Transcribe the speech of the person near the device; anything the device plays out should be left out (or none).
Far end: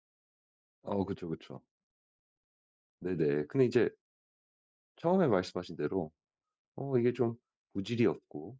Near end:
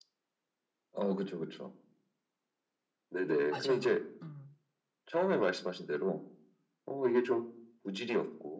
맞아요. 음.